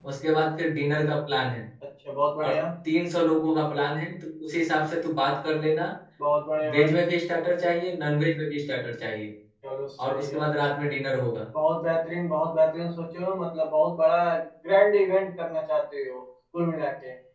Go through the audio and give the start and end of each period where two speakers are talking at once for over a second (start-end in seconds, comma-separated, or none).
none